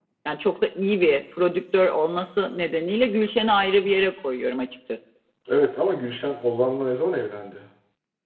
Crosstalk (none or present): none